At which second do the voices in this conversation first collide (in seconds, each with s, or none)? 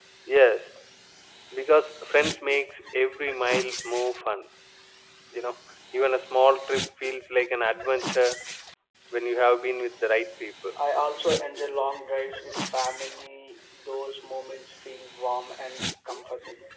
none